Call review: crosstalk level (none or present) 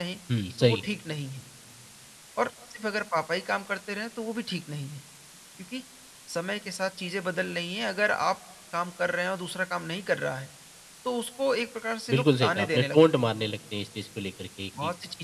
present